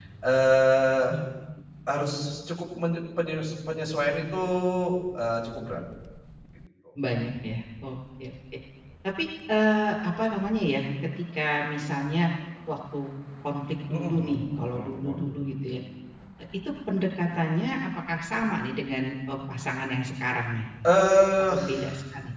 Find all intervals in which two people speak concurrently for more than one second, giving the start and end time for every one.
13.9-15.2

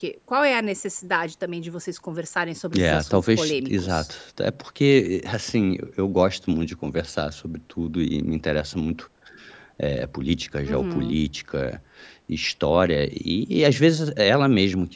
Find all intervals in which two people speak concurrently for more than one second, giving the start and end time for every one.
2.8-4.1

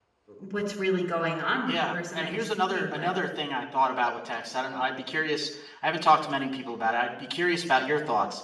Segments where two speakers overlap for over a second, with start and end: 1.7-3.1

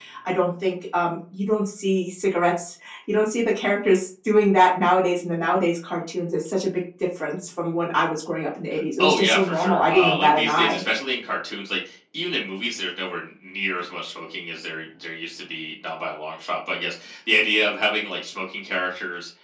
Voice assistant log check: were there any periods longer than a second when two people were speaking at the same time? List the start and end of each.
9.0-10.8

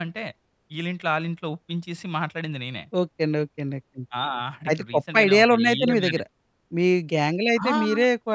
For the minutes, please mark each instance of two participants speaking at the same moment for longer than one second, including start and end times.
4.7-6.2

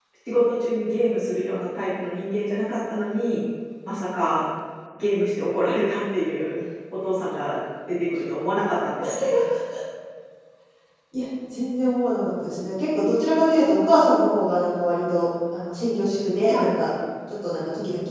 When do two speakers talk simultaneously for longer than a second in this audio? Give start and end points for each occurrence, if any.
none

